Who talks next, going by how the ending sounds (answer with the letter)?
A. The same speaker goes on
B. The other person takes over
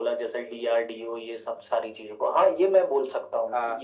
A